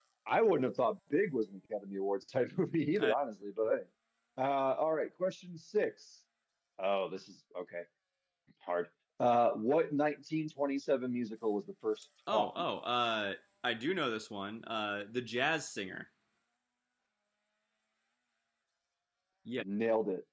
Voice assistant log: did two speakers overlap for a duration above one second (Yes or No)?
No